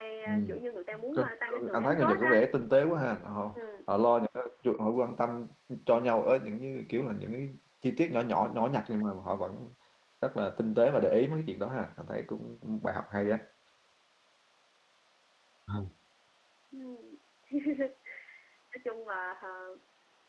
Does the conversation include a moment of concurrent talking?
Yes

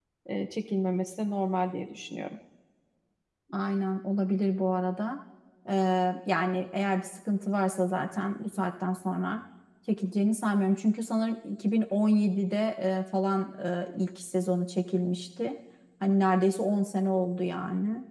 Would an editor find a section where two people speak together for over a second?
No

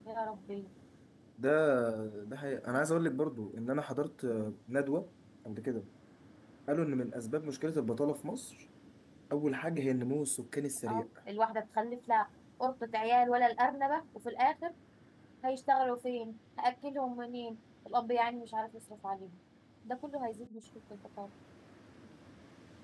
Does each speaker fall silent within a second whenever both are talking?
Yes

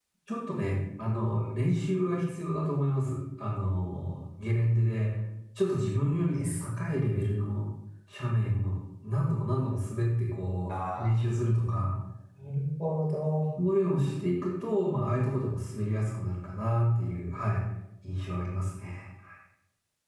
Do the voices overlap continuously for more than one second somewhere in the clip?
No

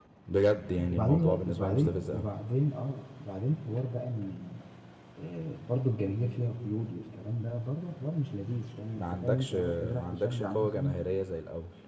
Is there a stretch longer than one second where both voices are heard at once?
Yes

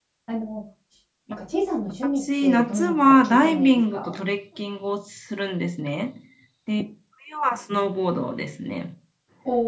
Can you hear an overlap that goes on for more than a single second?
Yes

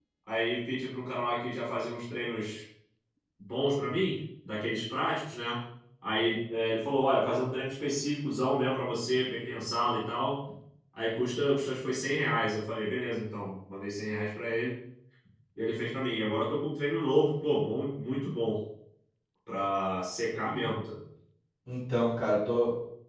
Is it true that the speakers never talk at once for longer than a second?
Yes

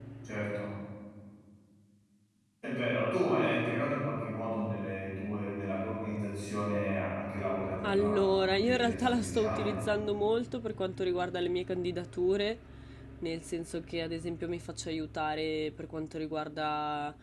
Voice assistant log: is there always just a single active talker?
No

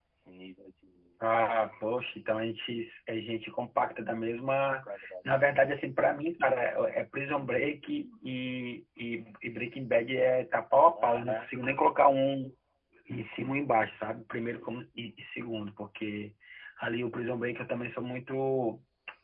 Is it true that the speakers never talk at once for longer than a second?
Yes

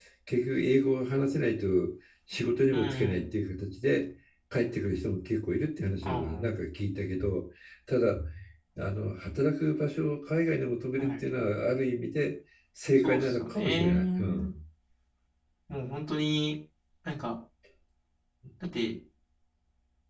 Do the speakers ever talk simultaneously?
Yes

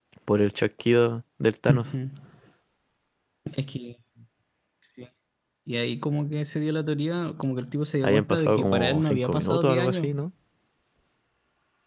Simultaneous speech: Yes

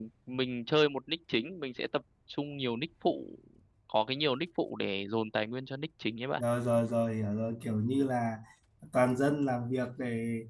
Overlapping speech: No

